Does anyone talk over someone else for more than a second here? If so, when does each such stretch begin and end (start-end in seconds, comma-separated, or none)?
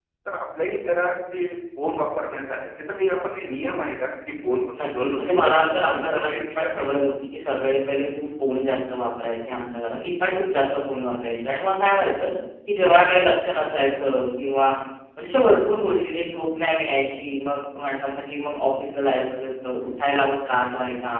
4.8-6.9